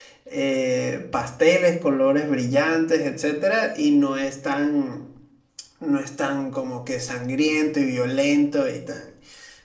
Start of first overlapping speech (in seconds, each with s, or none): none